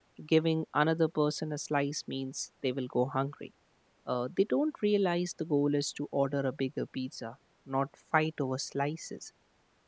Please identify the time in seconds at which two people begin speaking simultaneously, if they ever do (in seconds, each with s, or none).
none